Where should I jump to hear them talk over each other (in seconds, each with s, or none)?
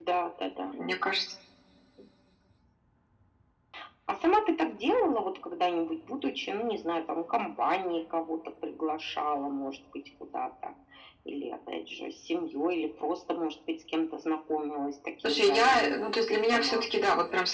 15.2 s